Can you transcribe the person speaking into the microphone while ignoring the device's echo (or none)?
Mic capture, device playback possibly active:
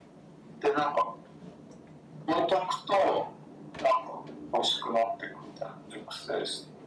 none